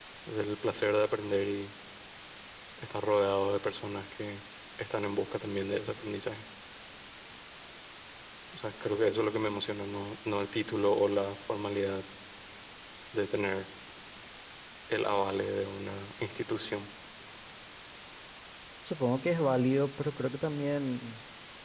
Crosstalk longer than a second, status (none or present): none